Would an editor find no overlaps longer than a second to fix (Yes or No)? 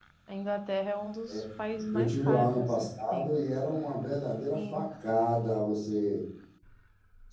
No